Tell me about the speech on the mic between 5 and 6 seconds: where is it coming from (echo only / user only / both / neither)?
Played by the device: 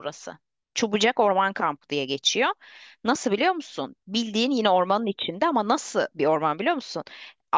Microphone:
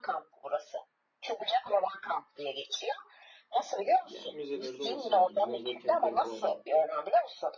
both